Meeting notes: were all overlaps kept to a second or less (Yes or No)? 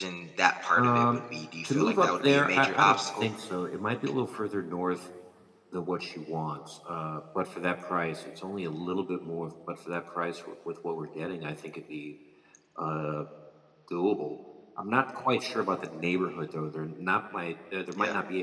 No